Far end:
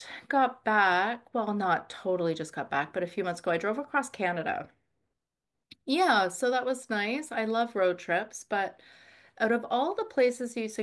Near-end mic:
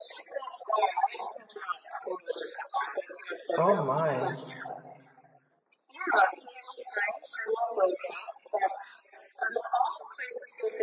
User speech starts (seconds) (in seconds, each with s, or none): 3.6 s